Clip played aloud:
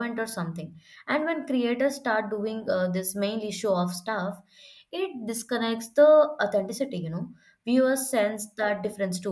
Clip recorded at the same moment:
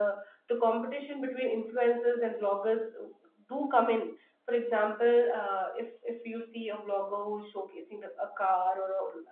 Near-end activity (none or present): present